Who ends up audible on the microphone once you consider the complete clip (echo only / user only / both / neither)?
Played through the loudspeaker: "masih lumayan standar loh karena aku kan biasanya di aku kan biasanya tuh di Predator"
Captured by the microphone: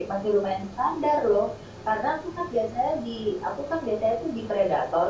echo only